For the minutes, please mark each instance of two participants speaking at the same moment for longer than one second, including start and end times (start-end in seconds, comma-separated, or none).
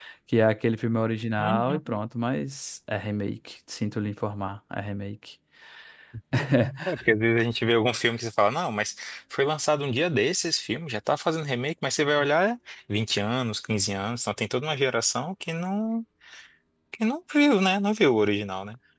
none